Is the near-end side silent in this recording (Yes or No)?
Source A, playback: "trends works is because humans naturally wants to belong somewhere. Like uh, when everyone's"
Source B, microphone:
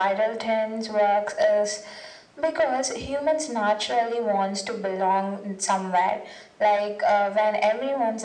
Yes